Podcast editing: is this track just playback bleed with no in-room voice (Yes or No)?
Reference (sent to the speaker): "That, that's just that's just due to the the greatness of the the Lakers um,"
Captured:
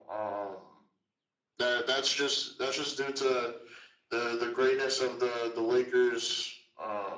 Yes